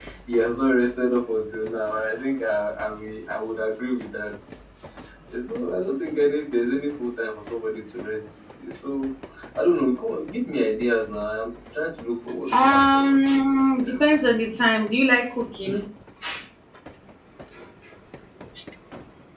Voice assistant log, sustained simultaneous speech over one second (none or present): present